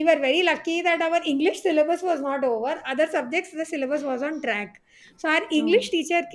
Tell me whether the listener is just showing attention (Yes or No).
Yes